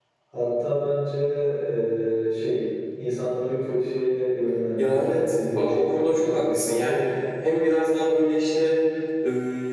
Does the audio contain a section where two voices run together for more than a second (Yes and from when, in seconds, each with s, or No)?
Yes, from 4.8 s